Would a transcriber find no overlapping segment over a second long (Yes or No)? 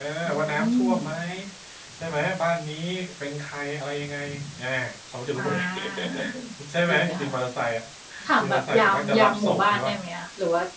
No